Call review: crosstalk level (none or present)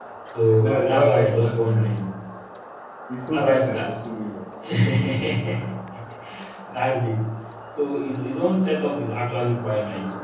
present